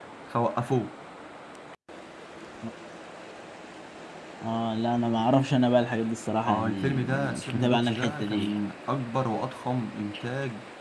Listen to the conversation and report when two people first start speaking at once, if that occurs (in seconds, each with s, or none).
6.5 s